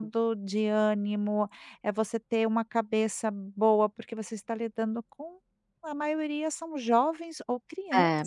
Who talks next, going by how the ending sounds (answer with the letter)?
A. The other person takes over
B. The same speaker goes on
B